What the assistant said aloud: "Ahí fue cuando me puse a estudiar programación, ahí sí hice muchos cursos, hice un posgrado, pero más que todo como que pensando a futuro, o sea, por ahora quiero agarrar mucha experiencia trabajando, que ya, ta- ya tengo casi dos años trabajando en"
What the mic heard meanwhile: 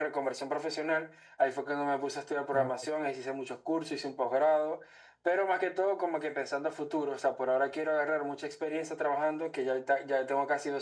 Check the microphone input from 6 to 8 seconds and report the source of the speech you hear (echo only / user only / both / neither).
echo only